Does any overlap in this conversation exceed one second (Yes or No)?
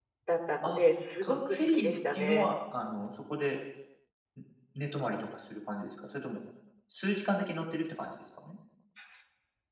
Yes